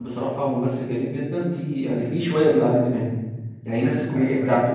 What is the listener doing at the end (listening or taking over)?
listening